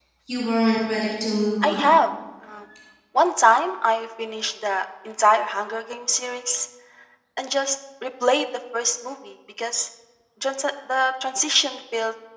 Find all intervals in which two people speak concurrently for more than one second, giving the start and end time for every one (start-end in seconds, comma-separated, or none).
none